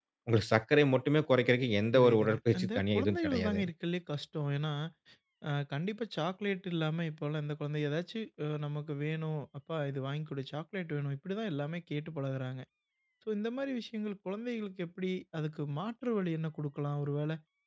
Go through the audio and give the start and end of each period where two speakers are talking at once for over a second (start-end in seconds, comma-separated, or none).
1.9-3.7